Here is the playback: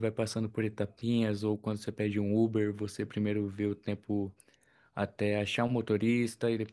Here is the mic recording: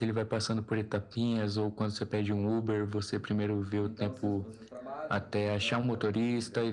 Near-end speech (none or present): present